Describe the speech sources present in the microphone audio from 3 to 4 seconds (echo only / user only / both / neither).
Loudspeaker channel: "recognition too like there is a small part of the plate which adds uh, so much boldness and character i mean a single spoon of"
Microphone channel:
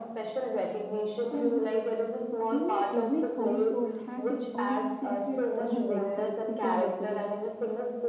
both